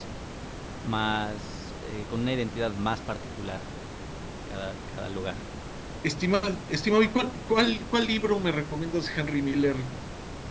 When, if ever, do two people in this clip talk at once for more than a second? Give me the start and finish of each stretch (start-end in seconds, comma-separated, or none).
none